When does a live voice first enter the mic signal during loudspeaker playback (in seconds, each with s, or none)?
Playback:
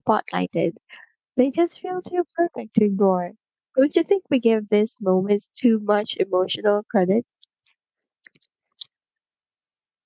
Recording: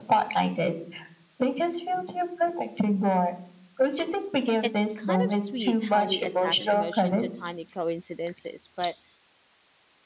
4.6 s